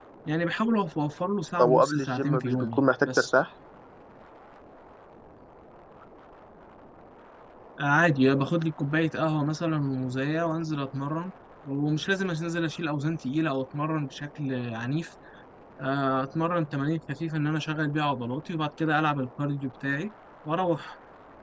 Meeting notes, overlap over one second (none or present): present